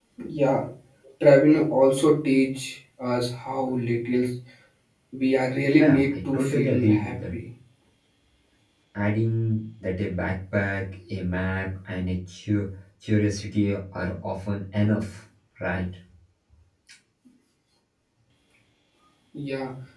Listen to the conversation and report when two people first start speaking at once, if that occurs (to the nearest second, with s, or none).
6 s